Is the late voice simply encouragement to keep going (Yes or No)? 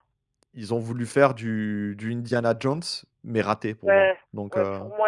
No